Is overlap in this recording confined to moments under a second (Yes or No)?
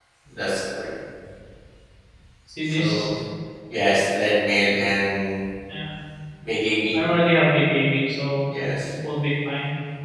Yes